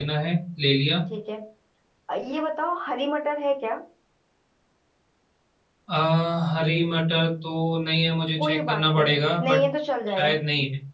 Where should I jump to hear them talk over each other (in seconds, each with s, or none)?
8.4 s